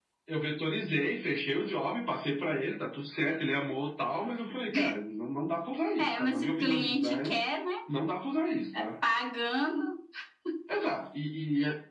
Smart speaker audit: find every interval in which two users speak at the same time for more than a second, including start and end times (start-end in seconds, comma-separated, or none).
6.0-7.4